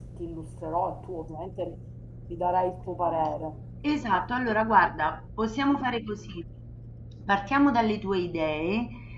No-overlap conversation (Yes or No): Yes